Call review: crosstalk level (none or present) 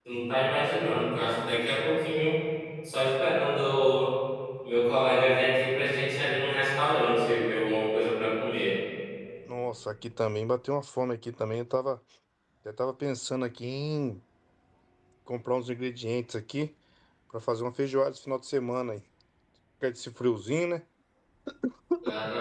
none